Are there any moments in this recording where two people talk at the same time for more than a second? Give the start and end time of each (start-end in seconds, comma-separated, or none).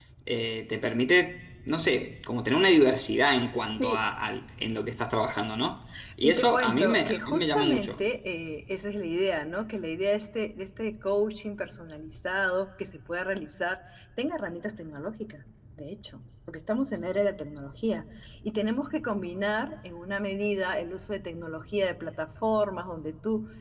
6.2-8.0